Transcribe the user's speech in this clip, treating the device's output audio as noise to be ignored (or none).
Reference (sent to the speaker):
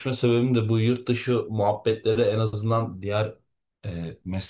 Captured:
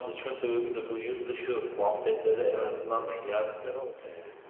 hayatımda değişiklikler oldu.